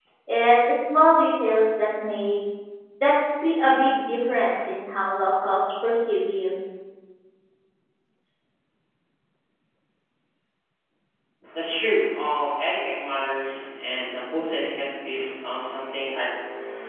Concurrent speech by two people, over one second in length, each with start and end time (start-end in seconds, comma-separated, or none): none